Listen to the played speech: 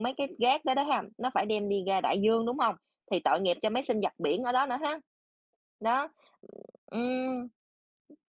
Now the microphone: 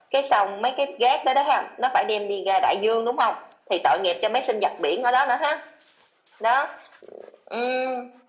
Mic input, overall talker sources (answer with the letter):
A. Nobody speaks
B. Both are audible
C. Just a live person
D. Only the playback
D